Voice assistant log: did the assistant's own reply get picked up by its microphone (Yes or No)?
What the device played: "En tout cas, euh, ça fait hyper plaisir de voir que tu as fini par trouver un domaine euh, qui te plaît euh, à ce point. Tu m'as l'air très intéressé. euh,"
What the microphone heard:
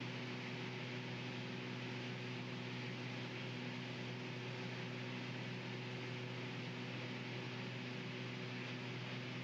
No